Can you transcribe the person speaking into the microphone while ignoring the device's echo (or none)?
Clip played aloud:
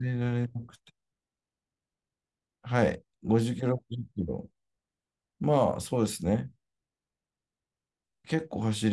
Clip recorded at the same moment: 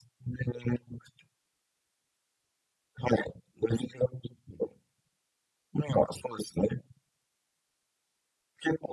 none